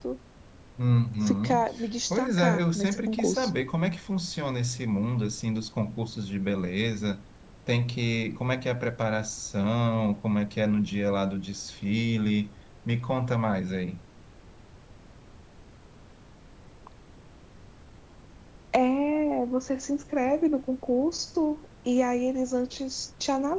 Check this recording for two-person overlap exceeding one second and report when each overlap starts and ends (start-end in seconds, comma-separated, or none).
2.1-3.5